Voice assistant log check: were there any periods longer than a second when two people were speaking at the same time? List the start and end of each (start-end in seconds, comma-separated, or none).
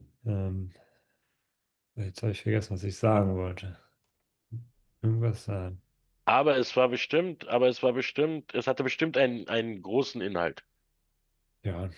none